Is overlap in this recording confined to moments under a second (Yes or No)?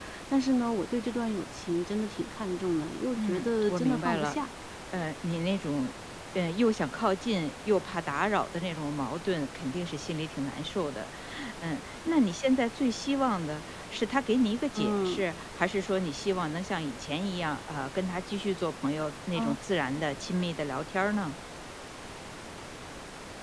No